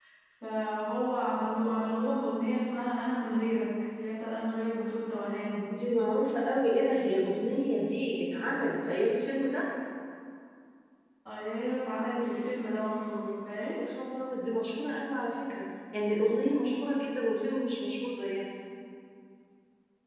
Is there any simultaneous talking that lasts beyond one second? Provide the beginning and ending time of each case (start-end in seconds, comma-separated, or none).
none